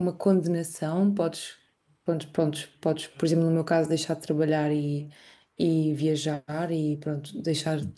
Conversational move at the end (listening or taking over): listening